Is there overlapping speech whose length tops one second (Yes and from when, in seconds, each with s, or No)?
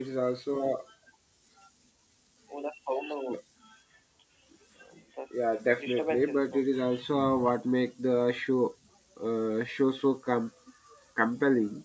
Yes, from 5.3 s